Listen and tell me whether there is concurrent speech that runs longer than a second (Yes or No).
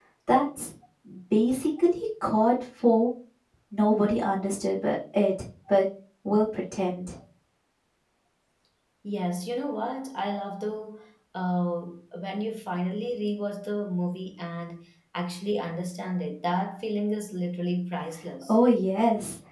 No